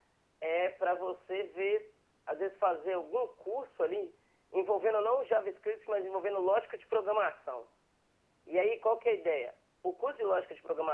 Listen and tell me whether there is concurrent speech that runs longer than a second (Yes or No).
No